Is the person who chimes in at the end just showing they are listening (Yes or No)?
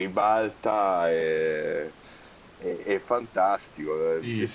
Yes